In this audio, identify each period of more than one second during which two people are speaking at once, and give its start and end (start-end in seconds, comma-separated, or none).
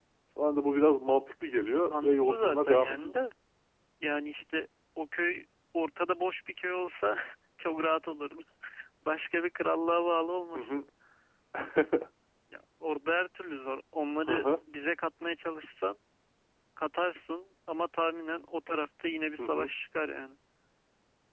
1.9-3.1